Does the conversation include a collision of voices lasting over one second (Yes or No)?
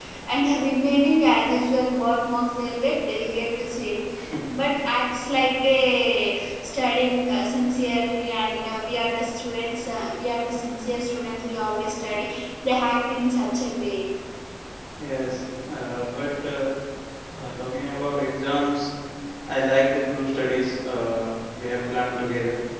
No